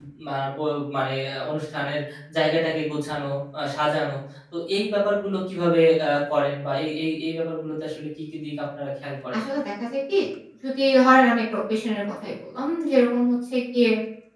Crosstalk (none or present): none